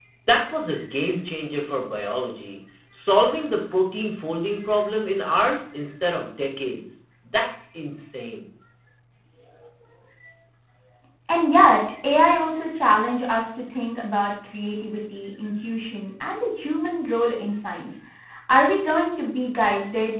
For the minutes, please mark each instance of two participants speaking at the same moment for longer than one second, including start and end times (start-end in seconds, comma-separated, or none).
none